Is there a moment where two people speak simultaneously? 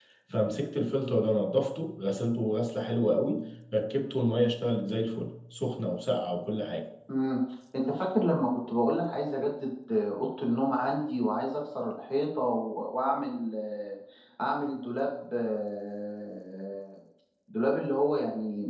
No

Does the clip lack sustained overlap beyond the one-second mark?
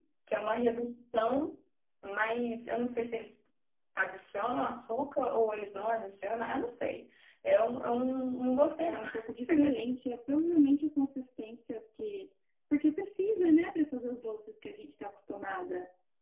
Yes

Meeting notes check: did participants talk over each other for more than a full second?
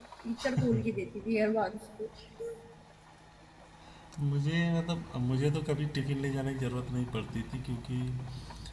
No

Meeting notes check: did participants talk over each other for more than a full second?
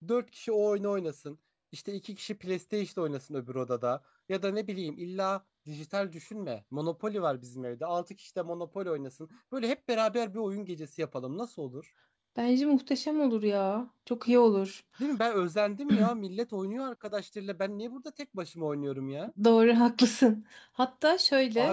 No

